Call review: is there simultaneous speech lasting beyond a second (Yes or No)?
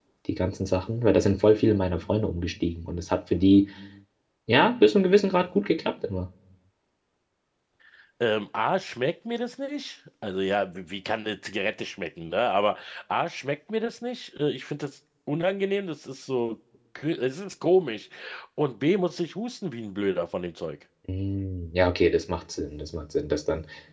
No